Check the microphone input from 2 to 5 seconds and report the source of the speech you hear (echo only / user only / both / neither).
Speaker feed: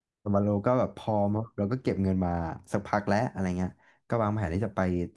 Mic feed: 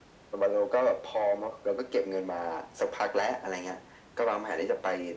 echo only